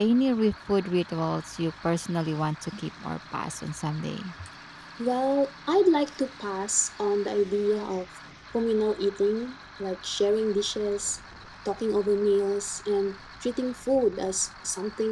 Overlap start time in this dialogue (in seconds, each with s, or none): none